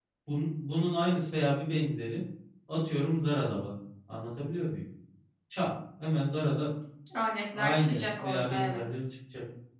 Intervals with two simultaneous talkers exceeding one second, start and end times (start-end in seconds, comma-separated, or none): 7.5-8.8